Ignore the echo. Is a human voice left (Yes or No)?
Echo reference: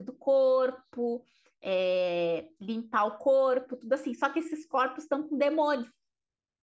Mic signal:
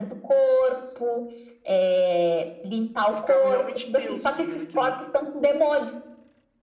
Yes